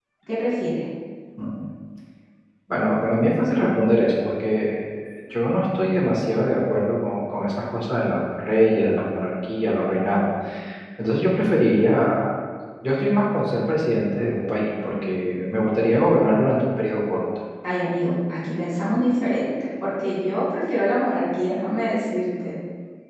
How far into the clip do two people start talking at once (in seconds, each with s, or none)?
none